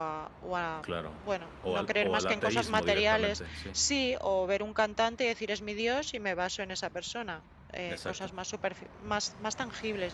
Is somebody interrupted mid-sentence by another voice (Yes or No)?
Yes